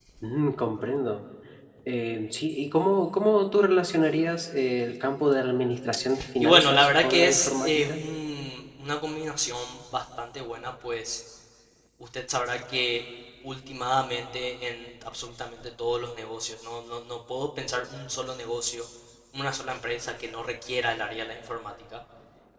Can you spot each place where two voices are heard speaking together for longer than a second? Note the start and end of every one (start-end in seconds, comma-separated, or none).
6.4-7.9